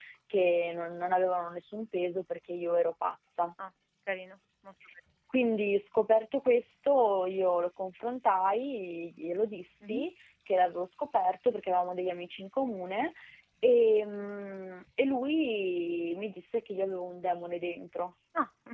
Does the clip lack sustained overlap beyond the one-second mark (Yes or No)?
Yes